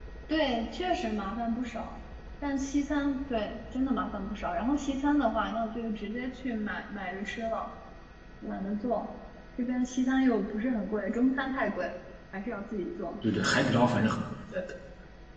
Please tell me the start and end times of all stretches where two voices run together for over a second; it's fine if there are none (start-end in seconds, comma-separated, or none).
none